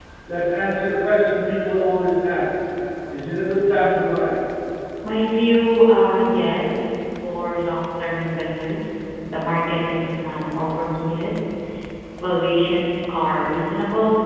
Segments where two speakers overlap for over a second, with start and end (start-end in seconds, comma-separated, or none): none